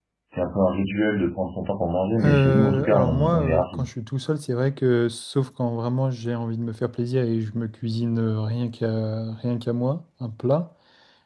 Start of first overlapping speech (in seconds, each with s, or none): 2.2 s